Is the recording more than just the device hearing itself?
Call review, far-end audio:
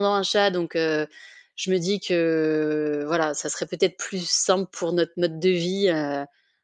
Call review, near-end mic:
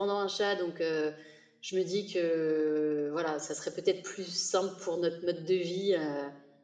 No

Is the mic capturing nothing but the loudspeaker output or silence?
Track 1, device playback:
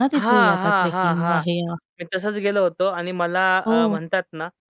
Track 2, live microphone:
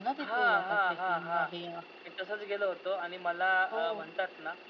Yes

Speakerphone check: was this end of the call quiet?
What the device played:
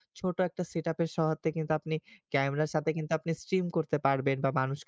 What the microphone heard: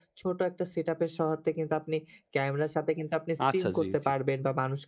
No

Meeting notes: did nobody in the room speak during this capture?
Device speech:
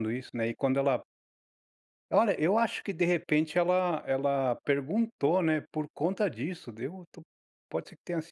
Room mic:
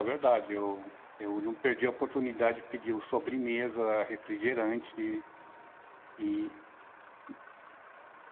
No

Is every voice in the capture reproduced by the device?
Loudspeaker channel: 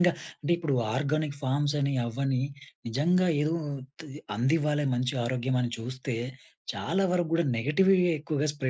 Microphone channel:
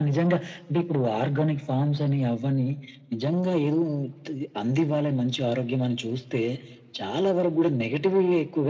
Yes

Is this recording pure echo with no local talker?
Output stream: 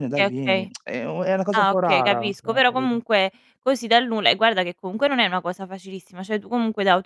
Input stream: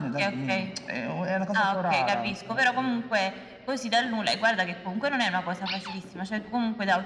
Yes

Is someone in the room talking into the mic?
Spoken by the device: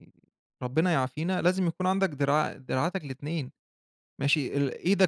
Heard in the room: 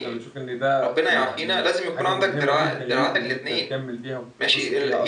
Yes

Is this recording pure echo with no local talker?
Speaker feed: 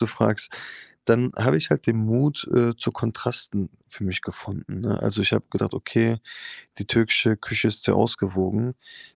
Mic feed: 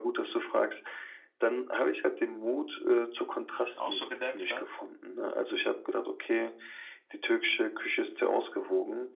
No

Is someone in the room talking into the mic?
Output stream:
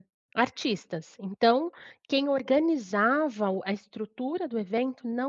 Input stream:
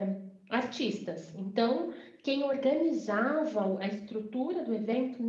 No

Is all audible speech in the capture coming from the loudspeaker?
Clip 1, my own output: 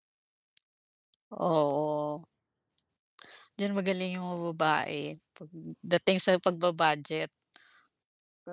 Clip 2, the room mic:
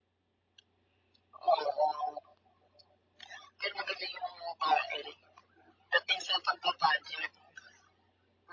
Yes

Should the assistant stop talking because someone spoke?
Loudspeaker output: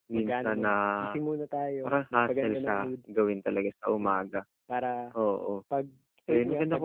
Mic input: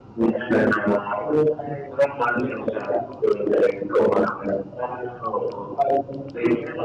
No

